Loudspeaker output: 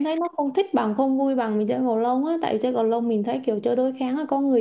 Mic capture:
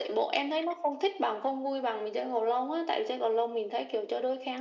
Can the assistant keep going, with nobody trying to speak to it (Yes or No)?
Yes